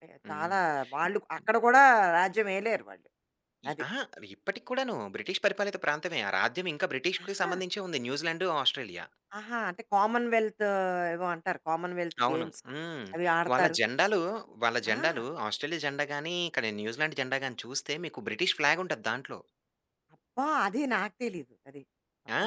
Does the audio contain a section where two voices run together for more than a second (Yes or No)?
No